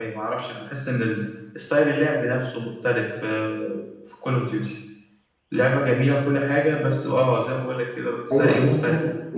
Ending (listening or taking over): taking over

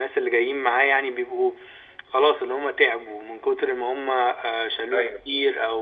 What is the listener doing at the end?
listening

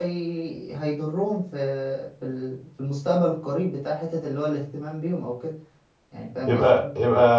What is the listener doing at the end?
taking over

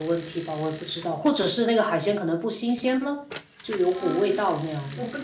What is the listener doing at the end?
taking over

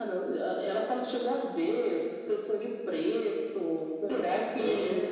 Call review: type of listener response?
taking over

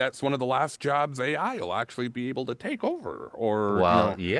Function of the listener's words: taking over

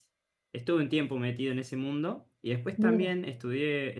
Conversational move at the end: listening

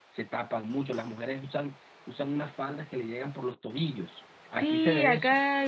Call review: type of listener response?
taking over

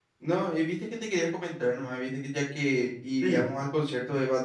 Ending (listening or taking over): listening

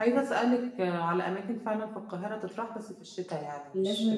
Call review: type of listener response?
taking over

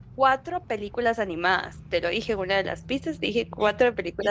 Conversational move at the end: taking over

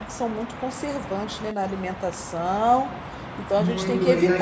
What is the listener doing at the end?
taking over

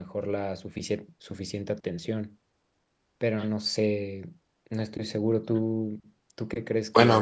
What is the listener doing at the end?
taking over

